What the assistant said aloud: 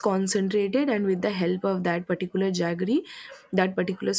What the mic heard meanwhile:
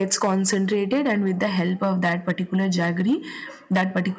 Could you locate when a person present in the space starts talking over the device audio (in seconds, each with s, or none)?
none